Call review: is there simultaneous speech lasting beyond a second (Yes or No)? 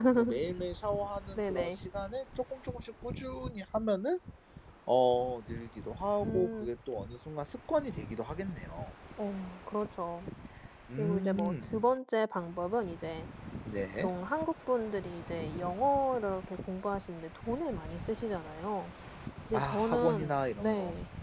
Yes